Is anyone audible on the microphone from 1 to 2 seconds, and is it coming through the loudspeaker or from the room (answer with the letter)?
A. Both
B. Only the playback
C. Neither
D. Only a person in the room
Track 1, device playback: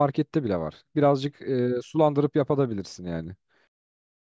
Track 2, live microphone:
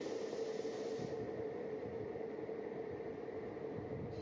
C